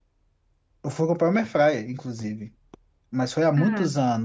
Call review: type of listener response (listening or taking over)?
listening